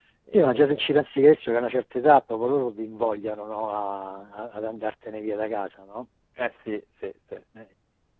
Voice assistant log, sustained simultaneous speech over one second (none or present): none